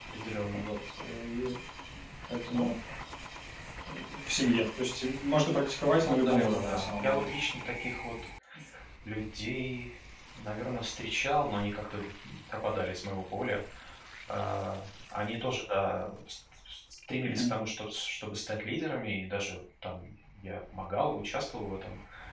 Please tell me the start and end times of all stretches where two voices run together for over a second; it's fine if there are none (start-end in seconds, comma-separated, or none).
6.0-7.3